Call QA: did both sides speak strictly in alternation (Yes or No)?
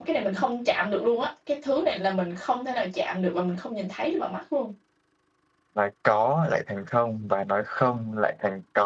Yes